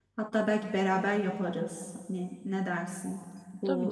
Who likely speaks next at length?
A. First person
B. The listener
B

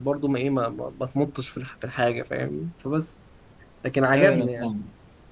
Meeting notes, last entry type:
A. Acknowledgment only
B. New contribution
B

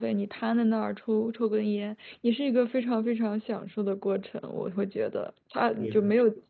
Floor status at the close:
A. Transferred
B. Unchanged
B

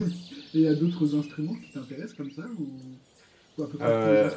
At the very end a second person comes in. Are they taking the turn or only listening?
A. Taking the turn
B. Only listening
B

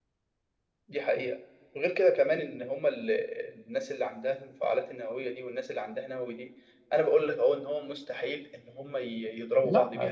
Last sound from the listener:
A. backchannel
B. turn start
A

